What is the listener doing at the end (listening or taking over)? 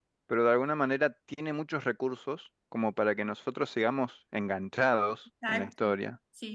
taking over